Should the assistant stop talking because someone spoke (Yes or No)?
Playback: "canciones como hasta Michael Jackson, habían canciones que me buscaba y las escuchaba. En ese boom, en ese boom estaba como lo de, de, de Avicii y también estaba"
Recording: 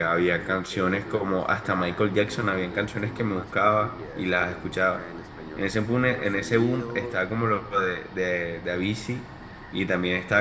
Yes